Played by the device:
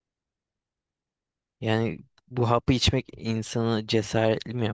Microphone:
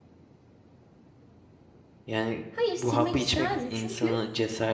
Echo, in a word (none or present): present